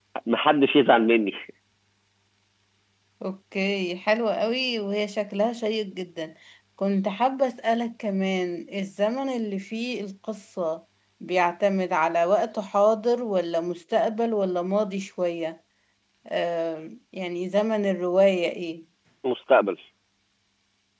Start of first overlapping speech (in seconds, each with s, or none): none